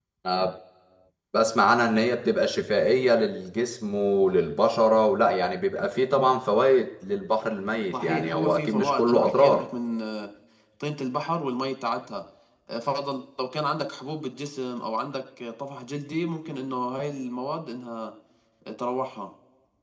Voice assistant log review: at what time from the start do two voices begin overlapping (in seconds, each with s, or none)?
7.9 s